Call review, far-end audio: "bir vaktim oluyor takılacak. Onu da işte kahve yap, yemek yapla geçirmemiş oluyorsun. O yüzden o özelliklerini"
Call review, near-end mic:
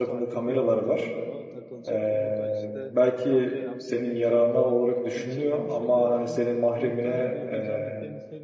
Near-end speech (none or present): present